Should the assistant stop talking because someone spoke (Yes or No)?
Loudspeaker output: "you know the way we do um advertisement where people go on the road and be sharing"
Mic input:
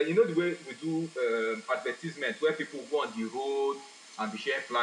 No